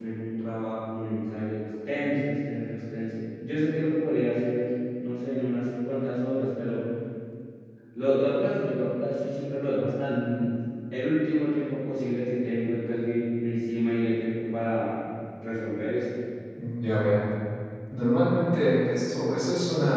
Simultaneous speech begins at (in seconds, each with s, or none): none